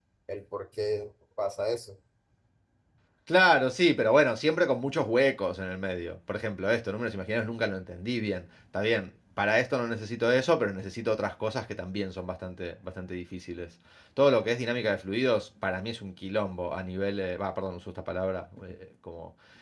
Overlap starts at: none

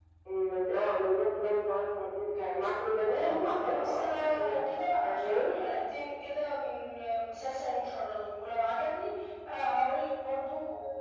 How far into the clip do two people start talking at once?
3.0 s

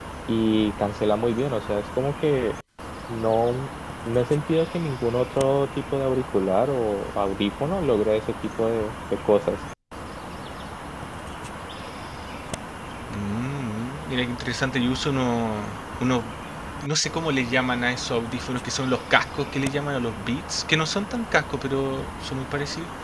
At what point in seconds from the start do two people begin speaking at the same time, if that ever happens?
none

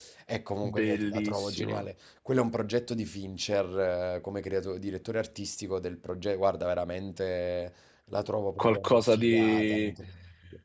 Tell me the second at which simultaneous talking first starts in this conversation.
0.6 s

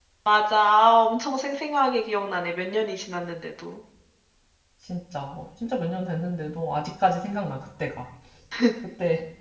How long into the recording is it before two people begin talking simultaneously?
none

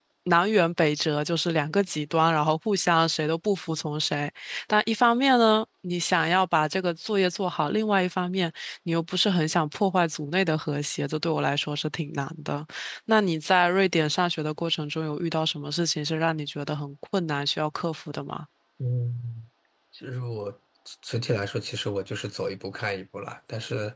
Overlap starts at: none

